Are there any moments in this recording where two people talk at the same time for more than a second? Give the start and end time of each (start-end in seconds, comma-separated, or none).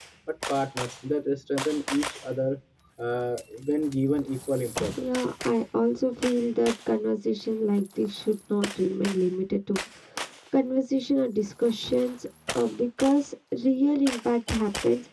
none